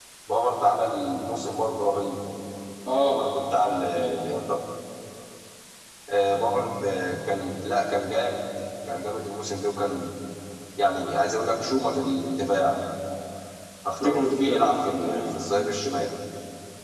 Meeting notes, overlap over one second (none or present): present